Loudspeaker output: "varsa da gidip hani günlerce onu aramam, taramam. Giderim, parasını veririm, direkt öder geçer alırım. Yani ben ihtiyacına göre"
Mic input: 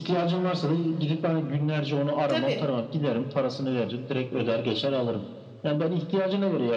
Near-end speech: present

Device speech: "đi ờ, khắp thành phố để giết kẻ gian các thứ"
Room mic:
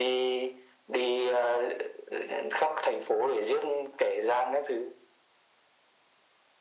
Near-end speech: none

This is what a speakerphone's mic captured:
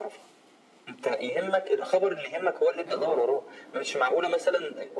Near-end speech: present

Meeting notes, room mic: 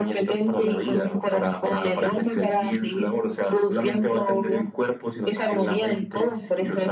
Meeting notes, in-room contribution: none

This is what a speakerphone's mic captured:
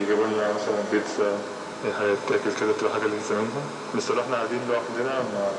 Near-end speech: none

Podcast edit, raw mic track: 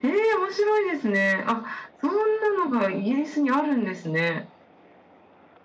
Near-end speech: none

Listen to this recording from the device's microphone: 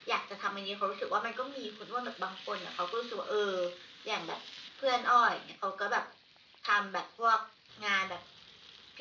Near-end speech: none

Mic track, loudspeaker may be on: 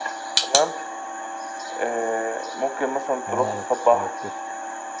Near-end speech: present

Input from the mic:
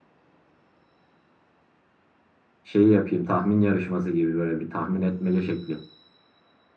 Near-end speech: present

